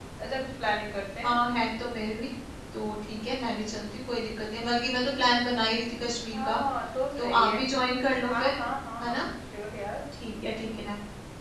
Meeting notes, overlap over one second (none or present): none